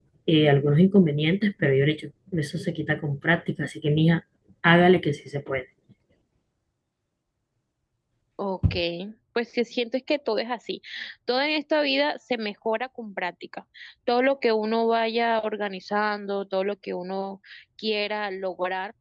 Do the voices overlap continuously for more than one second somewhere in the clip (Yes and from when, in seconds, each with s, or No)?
No